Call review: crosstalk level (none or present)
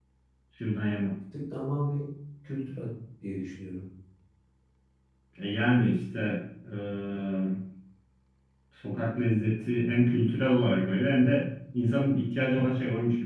none